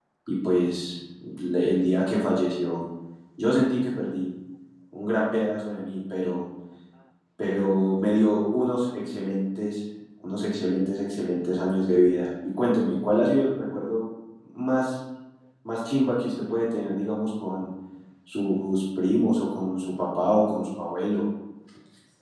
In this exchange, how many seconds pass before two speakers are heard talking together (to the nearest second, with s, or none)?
none